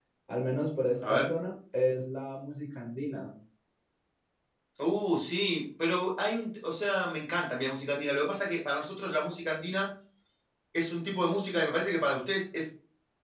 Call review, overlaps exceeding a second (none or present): none